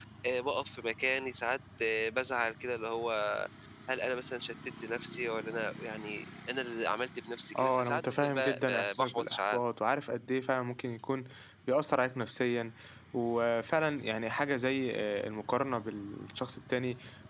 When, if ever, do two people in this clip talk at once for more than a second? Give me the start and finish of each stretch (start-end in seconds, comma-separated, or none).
7.6-9.6